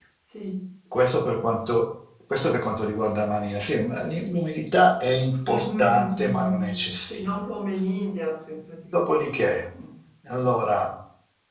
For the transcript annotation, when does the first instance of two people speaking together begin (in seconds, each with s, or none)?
5.5 s